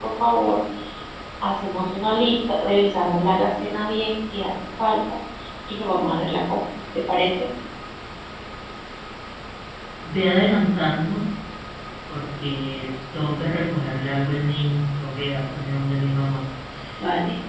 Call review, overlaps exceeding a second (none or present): none